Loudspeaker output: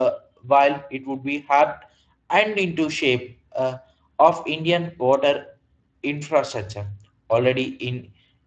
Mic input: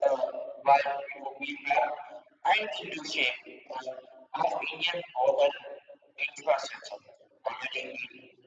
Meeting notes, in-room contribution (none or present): none